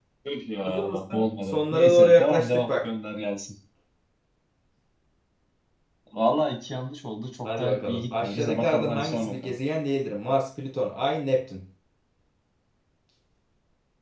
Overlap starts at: 1 s

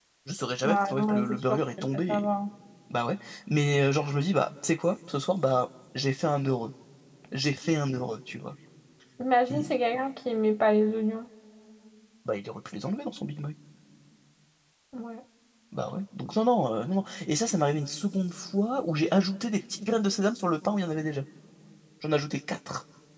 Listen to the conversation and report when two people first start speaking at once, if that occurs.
1 s

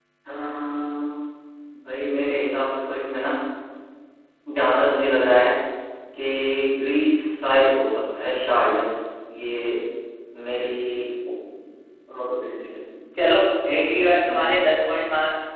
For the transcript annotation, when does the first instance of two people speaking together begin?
none

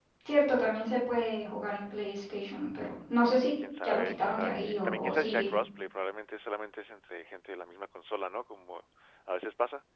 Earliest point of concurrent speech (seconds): 4 s

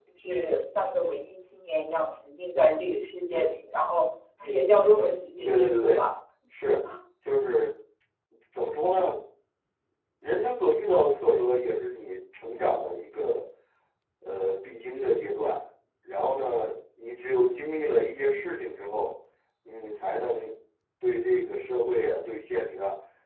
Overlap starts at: 5 s

